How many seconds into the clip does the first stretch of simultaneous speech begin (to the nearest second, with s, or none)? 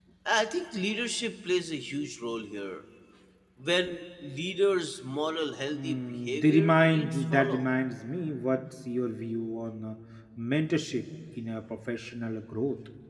6 s